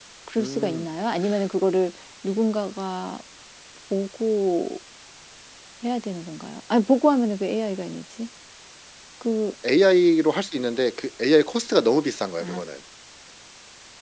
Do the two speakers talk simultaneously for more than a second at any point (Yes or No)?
No